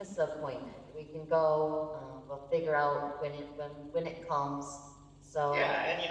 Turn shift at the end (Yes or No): Yes